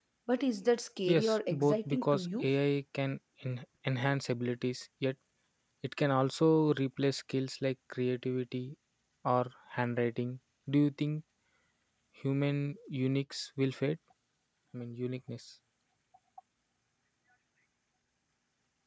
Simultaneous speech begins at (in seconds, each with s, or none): 1.1 s